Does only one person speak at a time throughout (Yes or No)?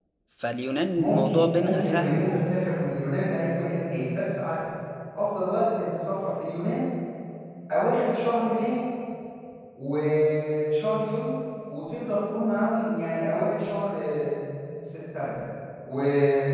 No